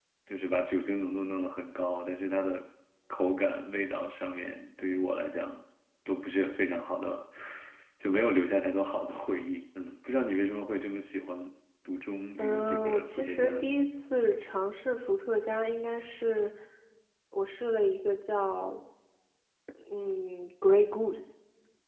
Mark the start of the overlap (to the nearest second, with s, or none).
12 s